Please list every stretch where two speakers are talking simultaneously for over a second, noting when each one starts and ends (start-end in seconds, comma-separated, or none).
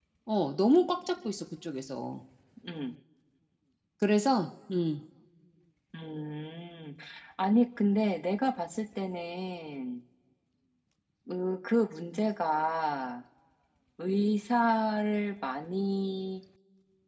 none